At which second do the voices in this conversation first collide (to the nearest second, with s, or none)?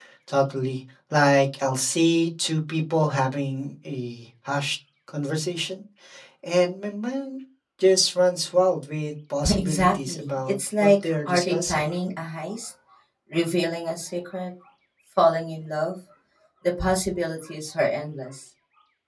9 s